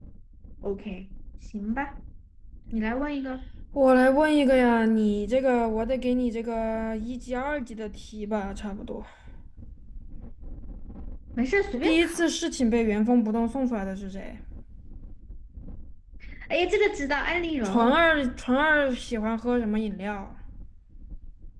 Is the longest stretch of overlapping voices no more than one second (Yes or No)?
Yes